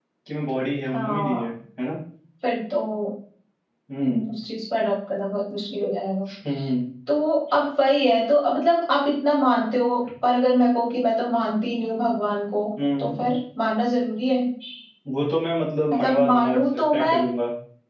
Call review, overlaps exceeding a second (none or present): present